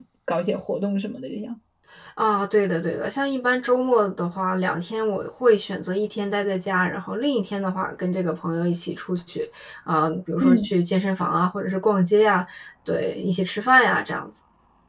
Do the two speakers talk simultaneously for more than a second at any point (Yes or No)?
No